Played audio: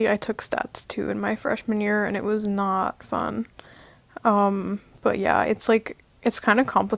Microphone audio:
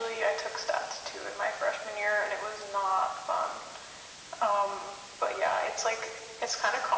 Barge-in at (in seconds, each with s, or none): none